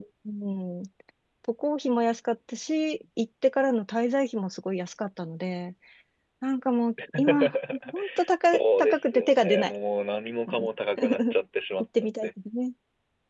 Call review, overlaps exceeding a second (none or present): present